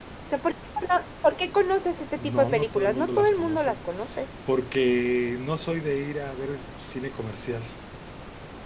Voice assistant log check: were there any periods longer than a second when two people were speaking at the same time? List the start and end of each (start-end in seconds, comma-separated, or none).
2.2-3.8